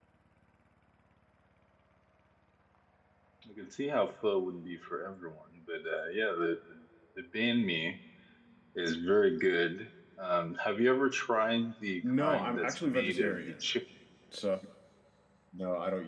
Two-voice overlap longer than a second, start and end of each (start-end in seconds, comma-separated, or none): 12.0-13.6